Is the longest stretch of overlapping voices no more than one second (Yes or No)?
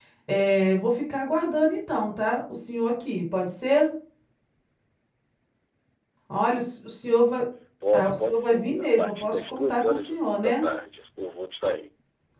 No